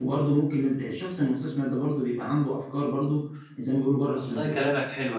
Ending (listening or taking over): taking over